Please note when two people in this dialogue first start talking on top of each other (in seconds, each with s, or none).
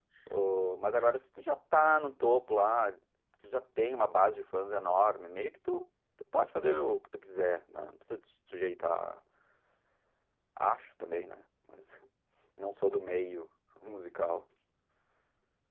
none